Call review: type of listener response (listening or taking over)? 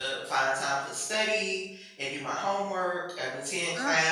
listening